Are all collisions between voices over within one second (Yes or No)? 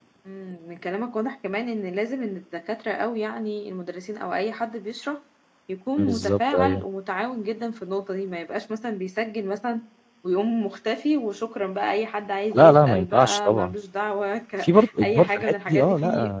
No